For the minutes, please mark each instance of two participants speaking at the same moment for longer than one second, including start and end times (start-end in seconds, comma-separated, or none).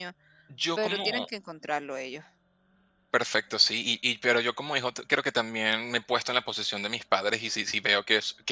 none